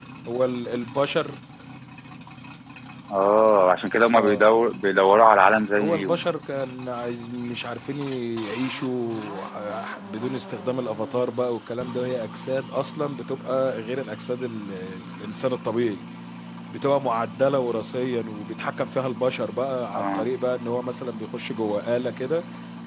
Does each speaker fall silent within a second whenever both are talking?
Yes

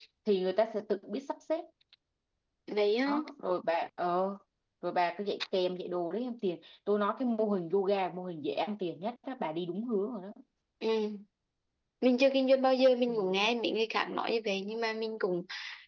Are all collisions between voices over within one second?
Yes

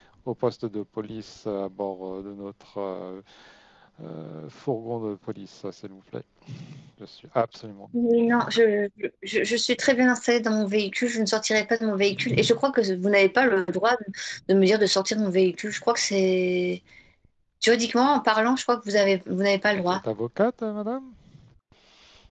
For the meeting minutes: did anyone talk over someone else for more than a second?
No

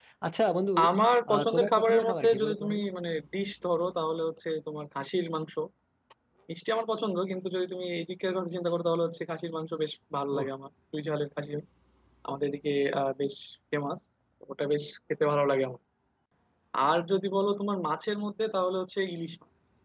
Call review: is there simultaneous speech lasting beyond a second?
Yes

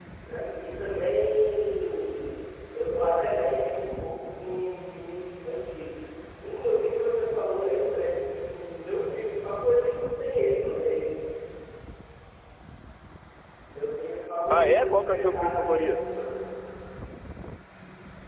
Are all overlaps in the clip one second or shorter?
No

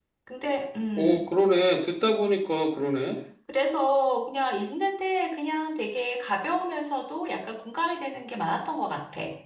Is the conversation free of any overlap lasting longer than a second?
Yes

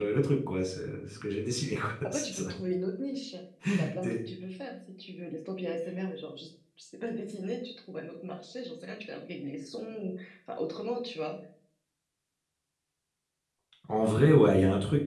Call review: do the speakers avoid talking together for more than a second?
Yes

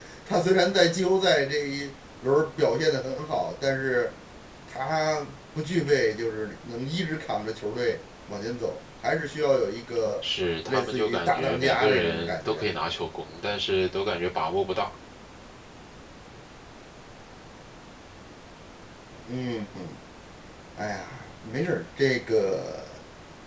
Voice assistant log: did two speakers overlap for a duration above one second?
Yes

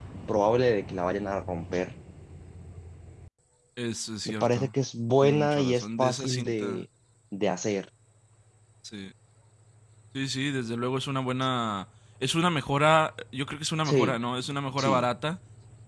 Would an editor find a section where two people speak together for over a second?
Yes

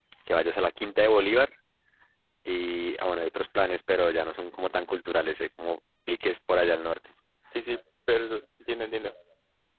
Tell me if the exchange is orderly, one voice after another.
Yes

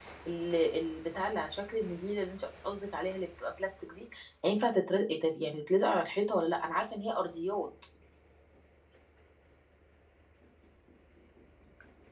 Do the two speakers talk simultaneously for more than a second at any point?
No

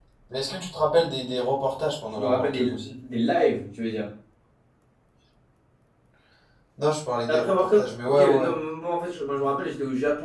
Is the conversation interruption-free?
No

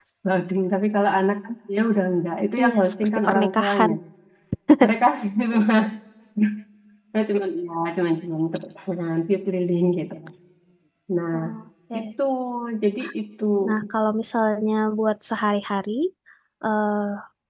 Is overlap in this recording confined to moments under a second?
No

